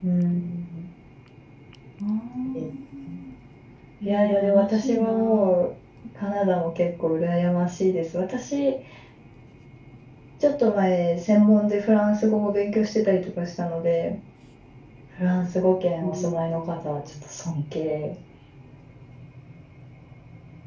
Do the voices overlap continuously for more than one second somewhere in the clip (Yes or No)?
Yes